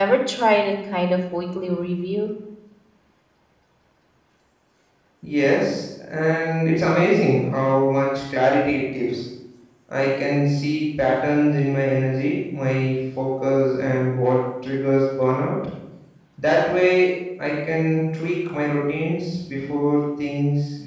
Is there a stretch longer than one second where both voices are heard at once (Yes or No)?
No